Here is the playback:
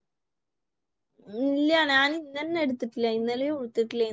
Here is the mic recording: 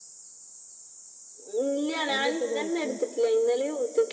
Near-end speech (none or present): present